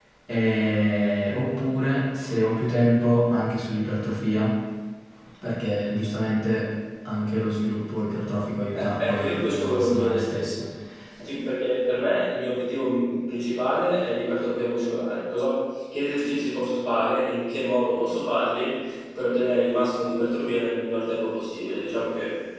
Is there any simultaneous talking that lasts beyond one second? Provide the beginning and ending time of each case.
8.7-10.5

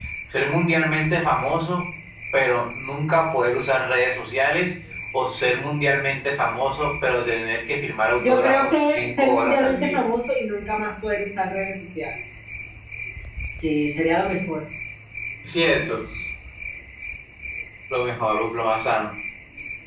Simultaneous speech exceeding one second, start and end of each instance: 8.2-10.0

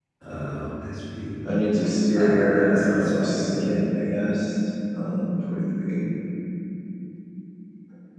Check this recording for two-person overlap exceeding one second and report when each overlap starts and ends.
2.1-3.8

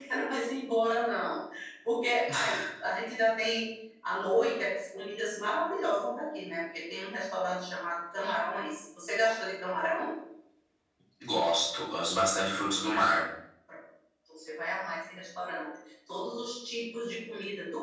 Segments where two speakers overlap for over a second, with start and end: none

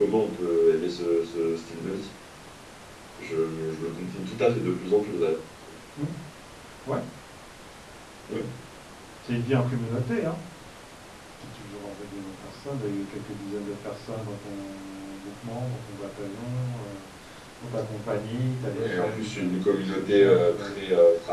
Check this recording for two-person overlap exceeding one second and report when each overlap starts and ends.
18.7-20.7

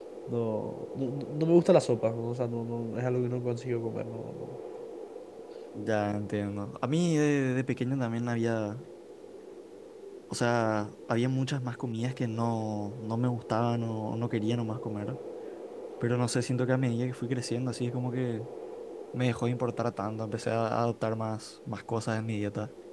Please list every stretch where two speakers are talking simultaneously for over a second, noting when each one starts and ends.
none

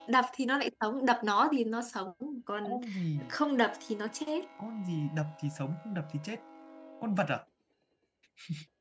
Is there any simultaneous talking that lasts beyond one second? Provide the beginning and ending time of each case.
none

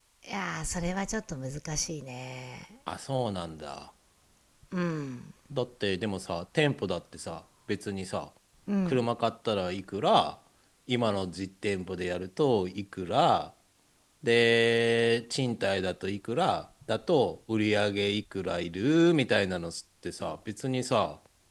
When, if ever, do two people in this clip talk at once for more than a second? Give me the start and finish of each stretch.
none

